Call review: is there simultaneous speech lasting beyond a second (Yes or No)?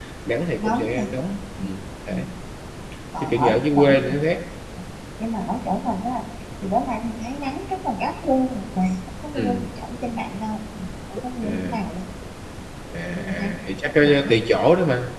Yes